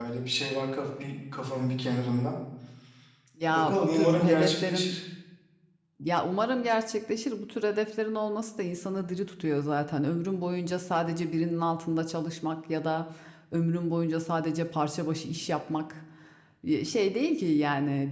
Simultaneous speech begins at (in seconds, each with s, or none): 3.5 s